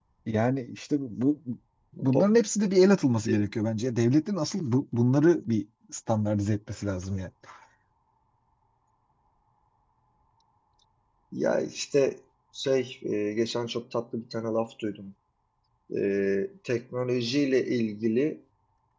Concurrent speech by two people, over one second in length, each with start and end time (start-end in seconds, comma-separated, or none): none